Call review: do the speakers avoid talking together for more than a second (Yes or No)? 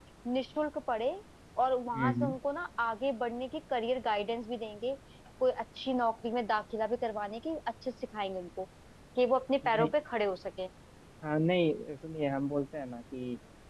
Yes